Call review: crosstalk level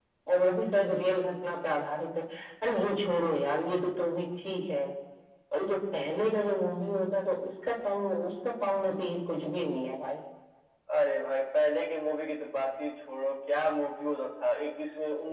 none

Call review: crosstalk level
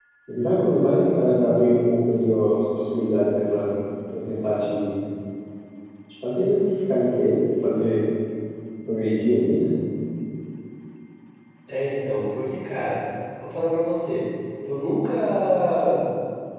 none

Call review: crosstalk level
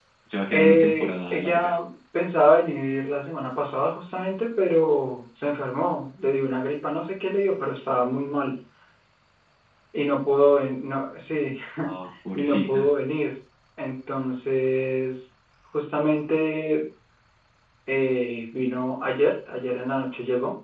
present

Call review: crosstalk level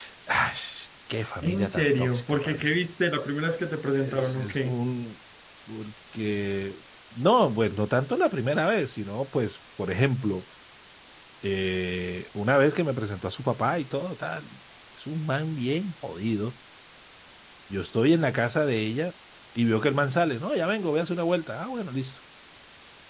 present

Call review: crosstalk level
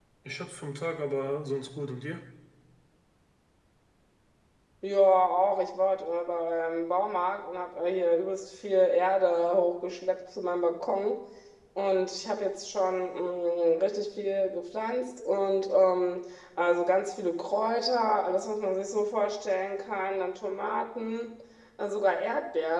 none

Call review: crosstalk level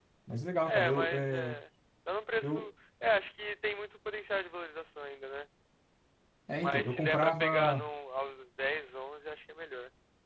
present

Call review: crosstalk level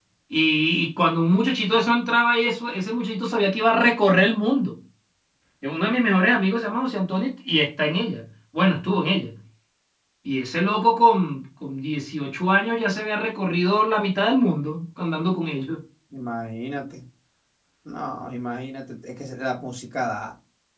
none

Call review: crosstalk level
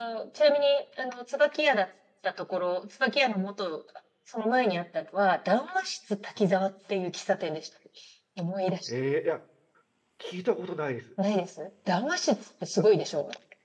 none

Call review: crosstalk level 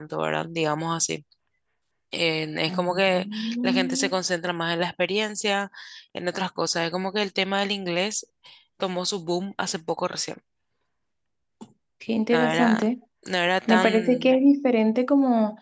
present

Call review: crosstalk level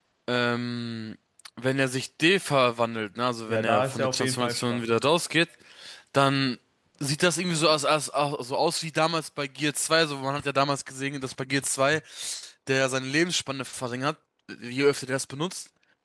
present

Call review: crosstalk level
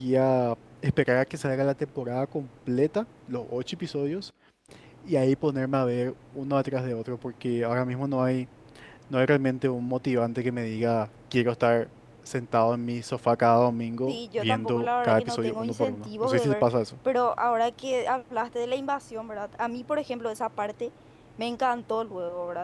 present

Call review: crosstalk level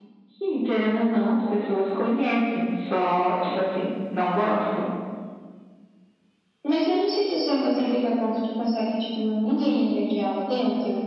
none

